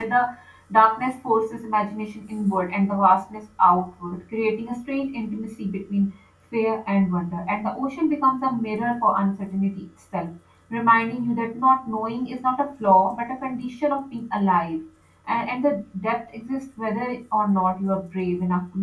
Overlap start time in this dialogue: none

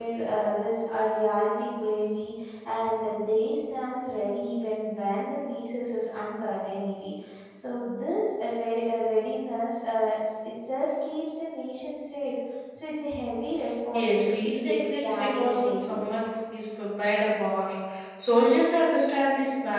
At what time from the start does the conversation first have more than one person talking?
13.9 s

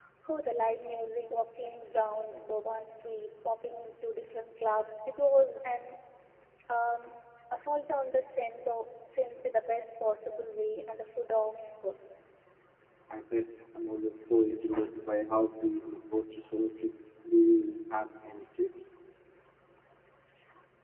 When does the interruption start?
none

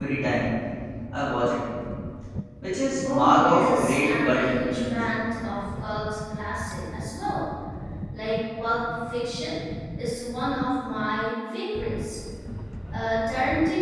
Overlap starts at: 3.0 s

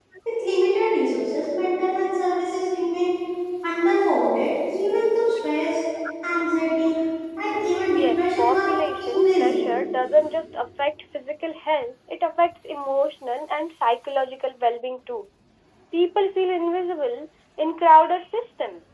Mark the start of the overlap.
7.9 s

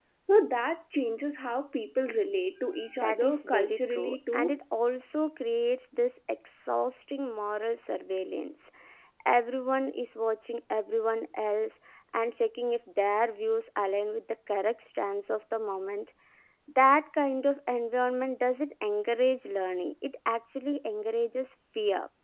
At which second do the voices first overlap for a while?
3.0 s

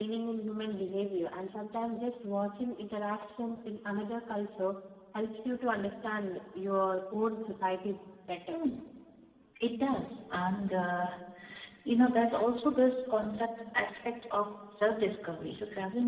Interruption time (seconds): none

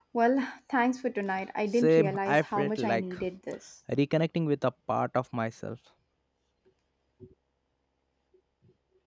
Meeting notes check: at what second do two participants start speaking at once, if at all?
1.7 s

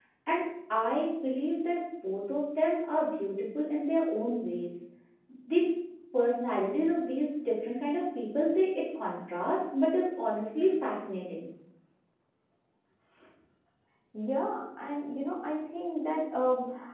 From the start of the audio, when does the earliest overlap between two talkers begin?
none

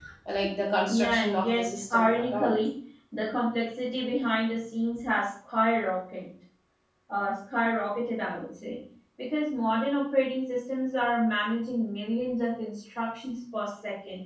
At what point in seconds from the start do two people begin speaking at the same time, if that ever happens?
0.9 s

